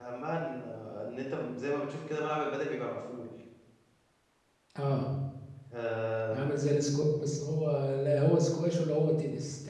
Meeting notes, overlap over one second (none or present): none